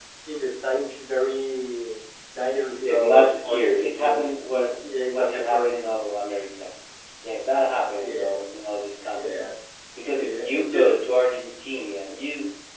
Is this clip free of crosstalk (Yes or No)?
No